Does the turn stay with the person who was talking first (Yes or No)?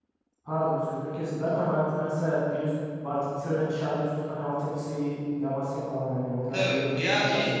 No